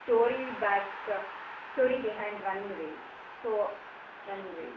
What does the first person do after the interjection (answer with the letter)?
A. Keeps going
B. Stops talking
B